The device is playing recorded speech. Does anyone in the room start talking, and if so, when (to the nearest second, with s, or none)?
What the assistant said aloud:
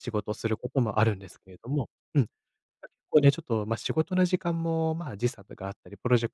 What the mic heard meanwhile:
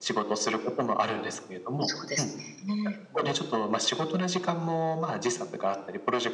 2 s